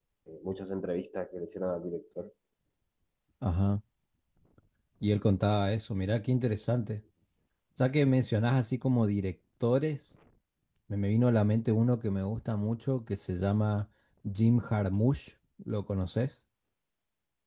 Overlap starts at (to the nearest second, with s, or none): none